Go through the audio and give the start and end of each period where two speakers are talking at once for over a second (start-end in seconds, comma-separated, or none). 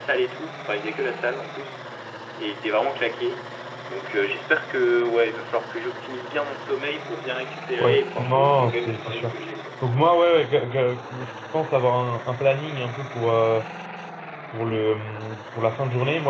7.8-9.3